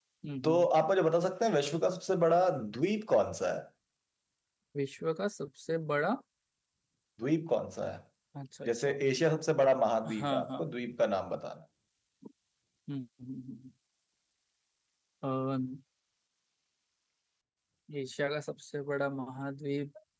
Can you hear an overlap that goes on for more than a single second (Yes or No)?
No